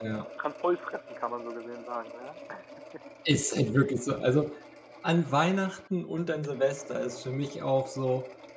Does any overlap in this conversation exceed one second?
No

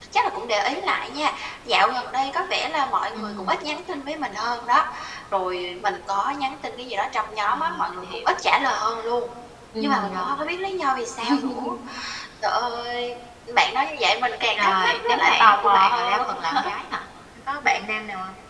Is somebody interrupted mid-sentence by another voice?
Yes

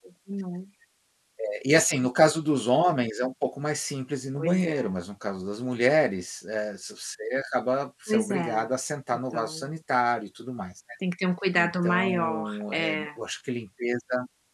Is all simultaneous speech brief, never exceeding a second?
No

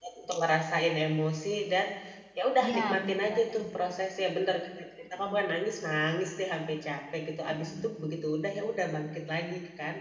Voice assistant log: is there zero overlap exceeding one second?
No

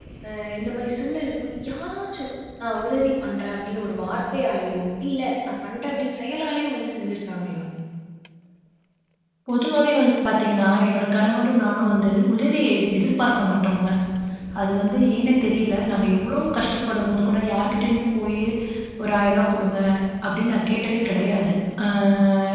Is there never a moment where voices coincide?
Yes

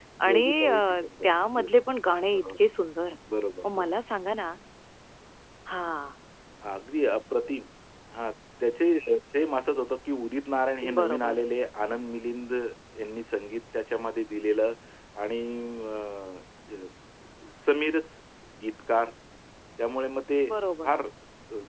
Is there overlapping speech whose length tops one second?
Yes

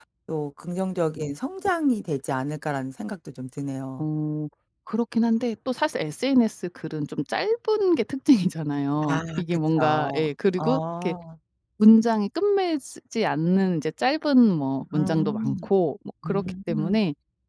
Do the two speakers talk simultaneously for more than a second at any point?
Yes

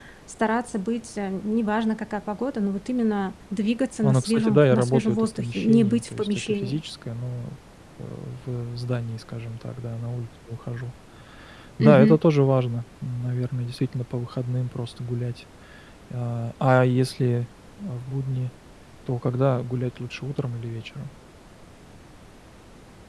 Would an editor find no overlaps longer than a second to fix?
No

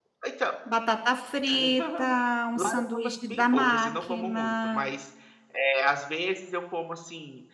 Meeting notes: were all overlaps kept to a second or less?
No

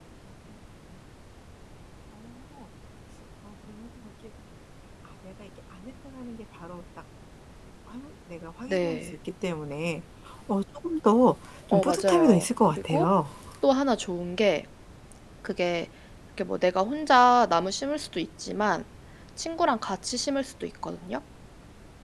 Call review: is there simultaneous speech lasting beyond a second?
Yes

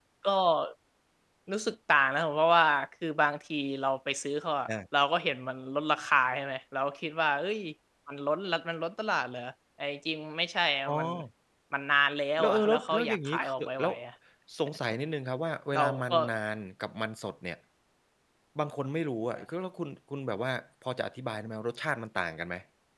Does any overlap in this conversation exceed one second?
Yes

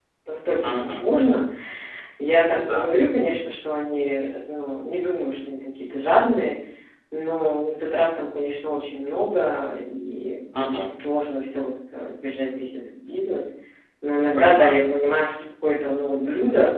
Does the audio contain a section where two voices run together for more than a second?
No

